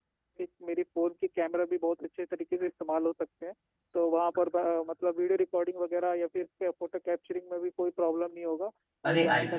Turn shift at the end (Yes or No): Yes